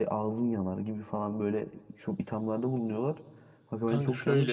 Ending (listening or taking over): listening